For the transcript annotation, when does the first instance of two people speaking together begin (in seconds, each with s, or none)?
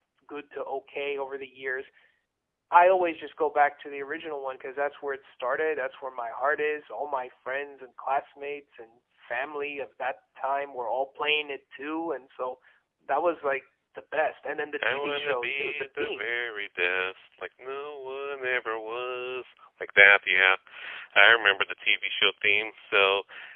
14.8 s